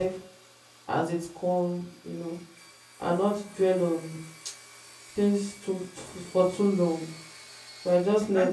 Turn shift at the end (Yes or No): Yes